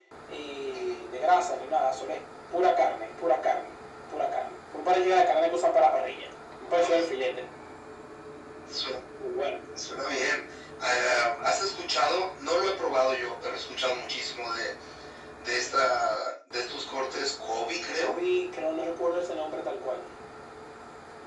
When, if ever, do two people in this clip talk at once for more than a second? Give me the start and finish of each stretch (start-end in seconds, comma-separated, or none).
none